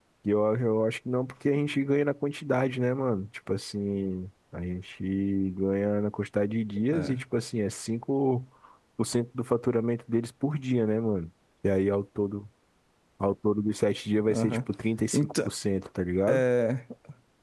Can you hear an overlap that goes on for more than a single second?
No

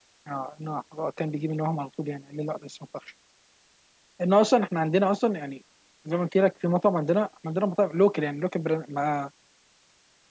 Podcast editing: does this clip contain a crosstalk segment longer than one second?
No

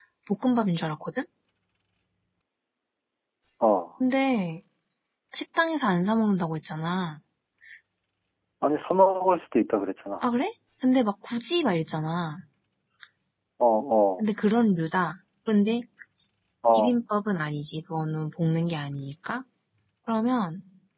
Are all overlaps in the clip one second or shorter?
Yes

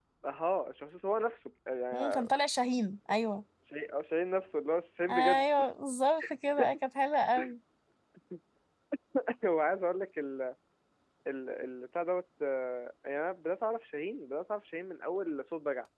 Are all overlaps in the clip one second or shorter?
Yes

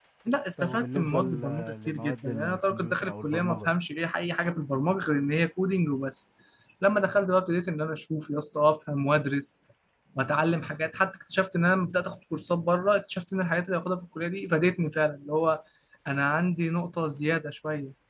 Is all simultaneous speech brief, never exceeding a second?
No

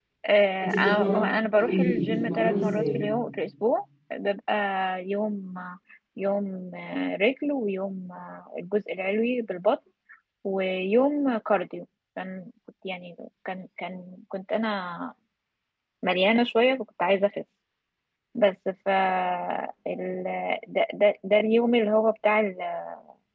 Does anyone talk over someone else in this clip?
Yes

